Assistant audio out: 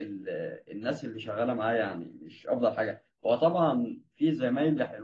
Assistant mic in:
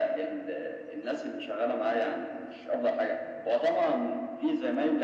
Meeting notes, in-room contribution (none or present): none